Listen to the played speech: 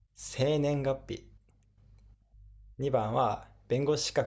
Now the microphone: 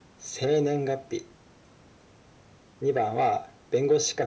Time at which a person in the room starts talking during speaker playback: none

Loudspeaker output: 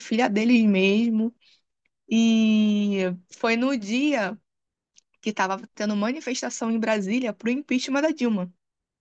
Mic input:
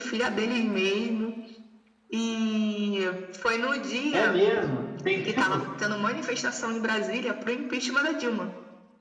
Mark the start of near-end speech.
4.1 s

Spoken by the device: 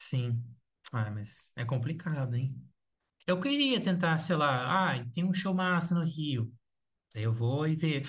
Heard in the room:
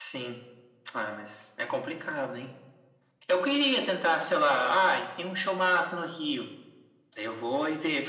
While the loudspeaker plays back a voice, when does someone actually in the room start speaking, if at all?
none

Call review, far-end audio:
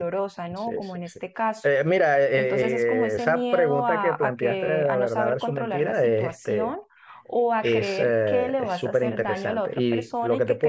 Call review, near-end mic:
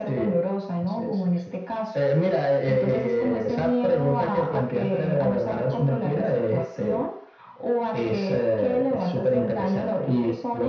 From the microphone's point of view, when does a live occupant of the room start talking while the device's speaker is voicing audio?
none

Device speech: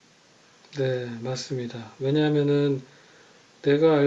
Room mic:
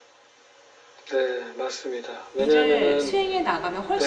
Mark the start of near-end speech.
2.4 s

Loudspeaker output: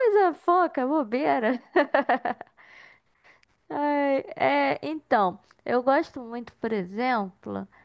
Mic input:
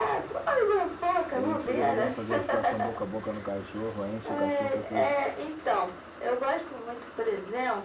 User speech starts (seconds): 1.3 s

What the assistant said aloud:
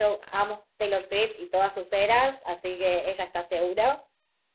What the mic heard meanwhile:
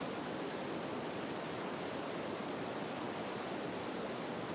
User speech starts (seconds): none

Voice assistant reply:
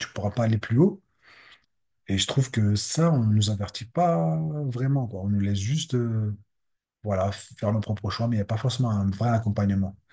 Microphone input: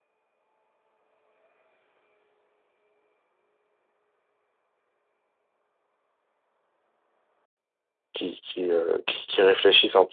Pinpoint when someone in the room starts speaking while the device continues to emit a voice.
8.1 s

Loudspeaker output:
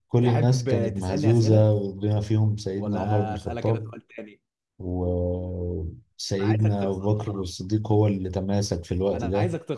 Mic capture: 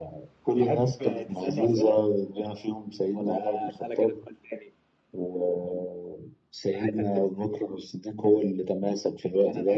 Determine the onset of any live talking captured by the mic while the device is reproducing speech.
none

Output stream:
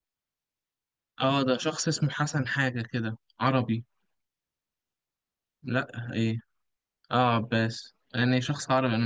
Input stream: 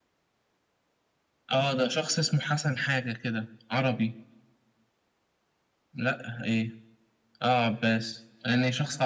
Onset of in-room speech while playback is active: none

